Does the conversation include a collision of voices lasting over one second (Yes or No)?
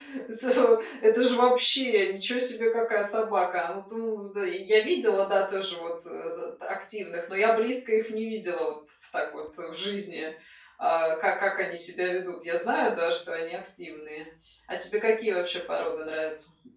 No